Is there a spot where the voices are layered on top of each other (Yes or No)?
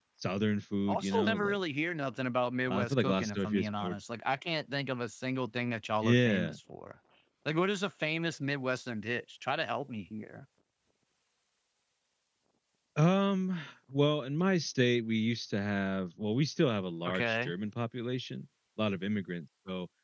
Yes